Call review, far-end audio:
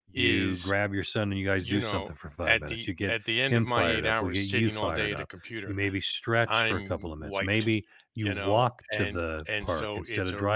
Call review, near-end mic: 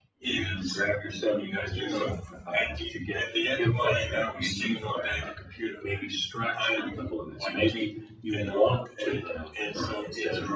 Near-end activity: none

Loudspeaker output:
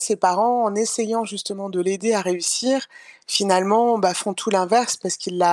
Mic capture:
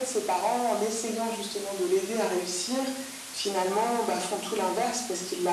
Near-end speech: none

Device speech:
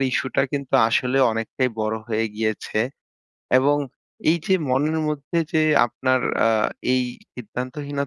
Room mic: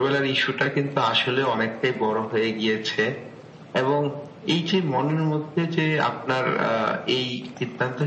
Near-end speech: none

